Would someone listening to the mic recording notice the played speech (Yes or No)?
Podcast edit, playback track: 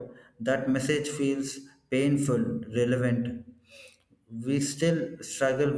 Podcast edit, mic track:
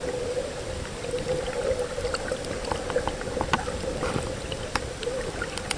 No